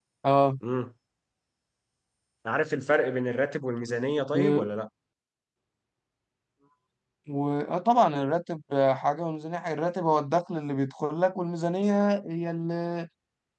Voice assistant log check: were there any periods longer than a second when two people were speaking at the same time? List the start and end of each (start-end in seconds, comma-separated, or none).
none